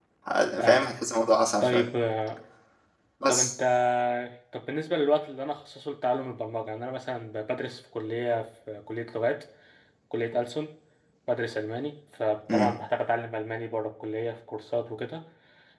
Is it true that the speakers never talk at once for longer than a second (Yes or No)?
Yes